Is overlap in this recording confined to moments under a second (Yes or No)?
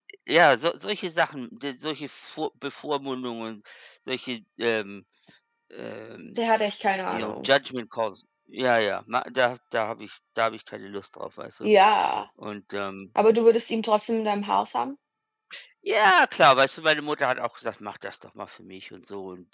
Yes